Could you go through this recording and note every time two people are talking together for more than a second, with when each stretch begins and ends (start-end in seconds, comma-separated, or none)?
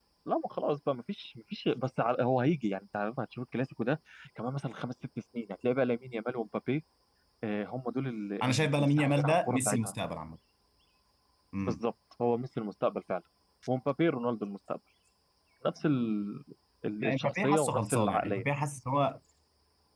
8.4-9.9, 17.0-18.4